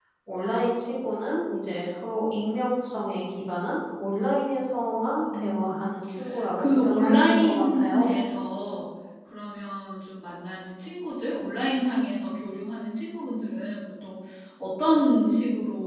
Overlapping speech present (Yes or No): Yes